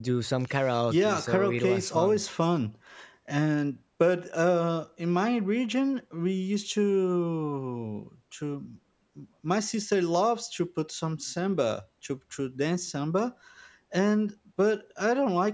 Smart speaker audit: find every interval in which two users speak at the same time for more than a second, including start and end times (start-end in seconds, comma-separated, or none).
0.9-2.2